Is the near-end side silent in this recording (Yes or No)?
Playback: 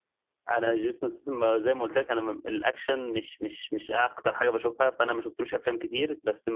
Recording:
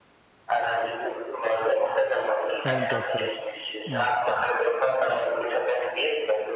No